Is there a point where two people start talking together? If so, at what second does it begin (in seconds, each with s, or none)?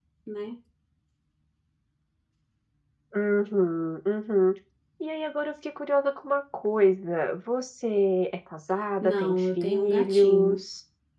9.0 s